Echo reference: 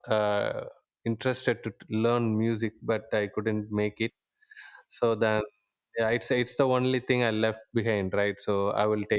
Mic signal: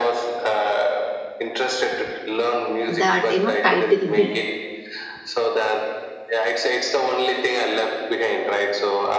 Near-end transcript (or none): that you know title be?